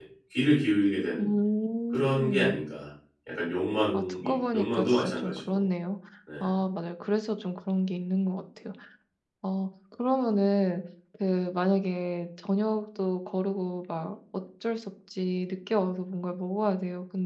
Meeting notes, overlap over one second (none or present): present